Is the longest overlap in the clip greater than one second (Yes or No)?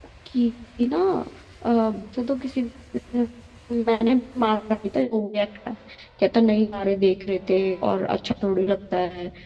No